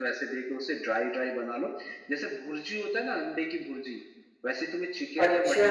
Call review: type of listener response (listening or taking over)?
listening